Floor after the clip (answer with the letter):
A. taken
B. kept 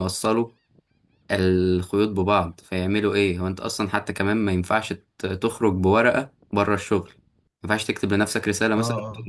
B